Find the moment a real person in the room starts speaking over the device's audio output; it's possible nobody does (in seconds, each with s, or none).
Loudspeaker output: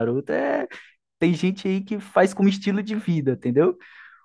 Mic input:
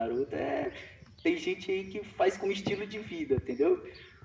none